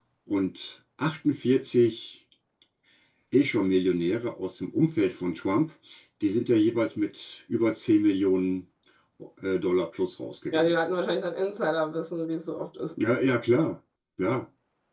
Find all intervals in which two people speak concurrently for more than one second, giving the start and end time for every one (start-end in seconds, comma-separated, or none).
none